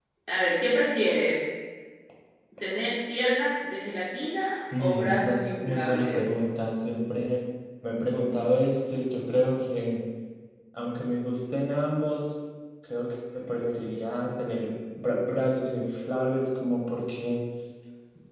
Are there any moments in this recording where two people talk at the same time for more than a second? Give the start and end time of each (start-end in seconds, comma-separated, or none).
4.7-6.2